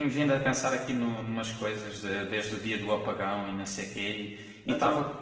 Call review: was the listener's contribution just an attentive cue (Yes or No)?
Yes